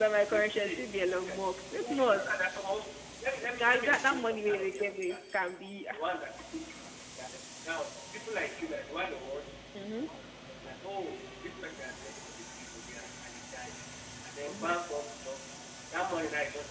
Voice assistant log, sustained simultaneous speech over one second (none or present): present